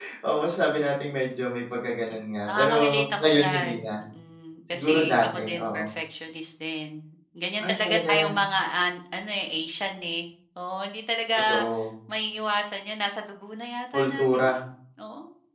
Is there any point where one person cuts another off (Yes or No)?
Yes